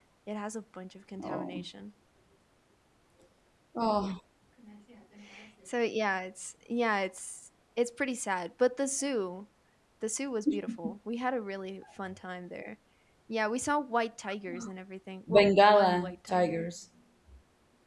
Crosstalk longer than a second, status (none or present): present